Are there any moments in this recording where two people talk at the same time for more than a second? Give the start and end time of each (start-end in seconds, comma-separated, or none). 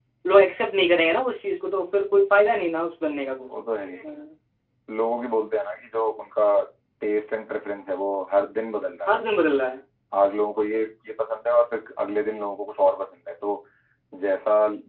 none